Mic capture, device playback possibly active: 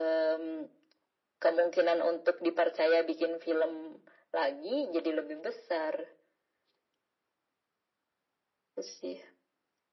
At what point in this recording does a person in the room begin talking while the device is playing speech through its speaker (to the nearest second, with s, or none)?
none